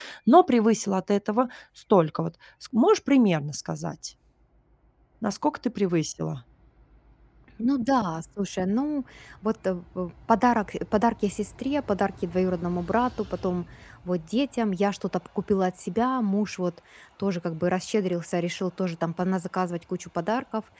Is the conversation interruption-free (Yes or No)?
Yes